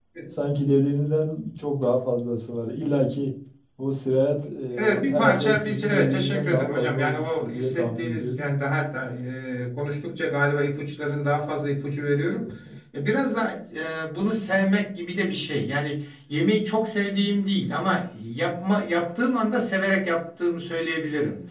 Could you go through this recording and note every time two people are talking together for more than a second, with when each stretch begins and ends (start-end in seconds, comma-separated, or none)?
4.8-8.5